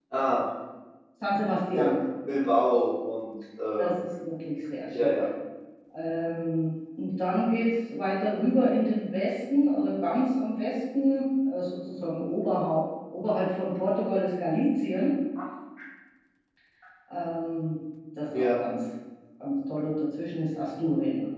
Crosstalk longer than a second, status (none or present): none